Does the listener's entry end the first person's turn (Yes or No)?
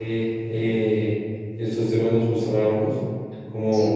No